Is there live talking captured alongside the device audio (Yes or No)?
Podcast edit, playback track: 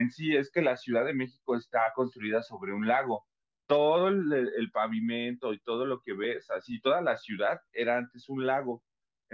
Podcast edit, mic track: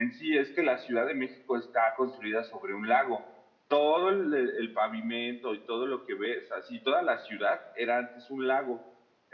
No